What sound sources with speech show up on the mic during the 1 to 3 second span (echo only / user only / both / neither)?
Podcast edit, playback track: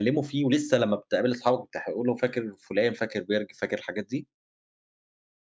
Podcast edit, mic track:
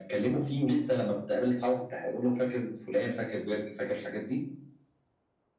echo only